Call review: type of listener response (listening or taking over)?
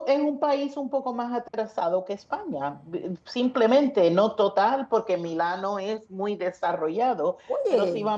listening